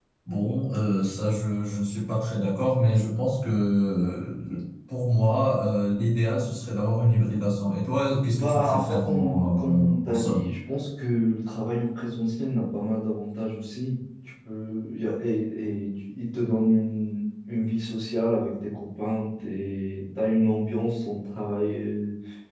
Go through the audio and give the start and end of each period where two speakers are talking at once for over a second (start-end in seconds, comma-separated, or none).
8.3-10.4